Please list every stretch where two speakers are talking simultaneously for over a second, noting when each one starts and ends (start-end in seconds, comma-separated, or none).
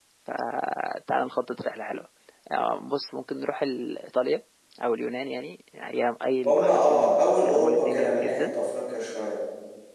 6.5-8.5